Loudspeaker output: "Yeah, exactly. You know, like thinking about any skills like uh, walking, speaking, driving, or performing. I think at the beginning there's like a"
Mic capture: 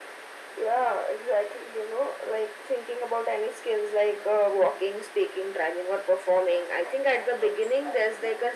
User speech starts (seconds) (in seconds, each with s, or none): none